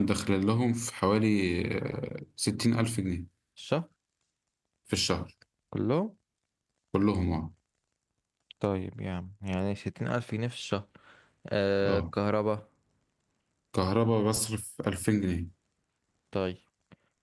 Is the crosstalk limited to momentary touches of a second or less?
Yes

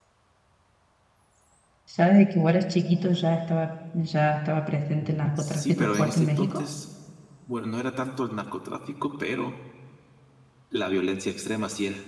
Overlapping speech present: Yes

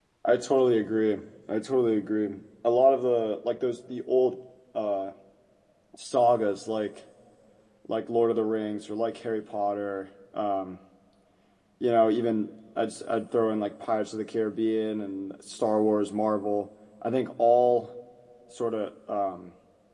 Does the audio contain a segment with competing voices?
No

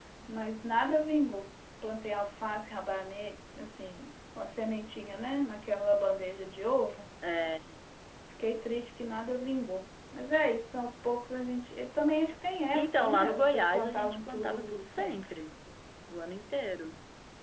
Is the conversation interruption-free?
No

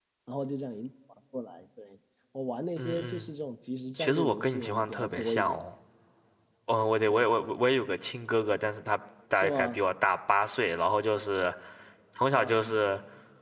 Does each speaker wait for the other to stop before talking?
No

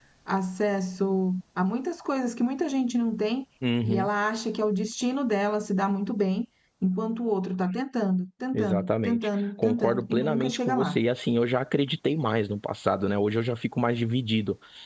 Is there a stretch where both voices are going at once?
Yes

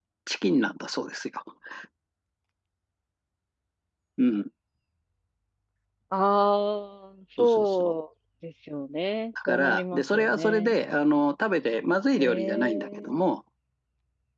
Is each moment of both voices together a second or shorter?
No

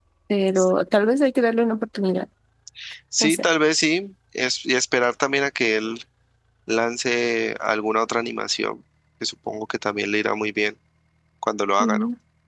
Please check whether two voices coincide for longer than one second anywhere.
No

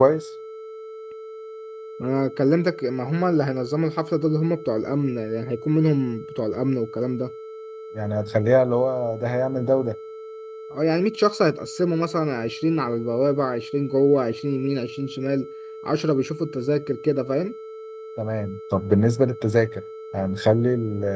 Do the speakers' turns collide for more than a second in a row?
No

